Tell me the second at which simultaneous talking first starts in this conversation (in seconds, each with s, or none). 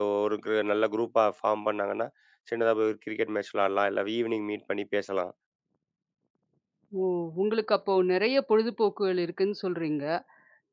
none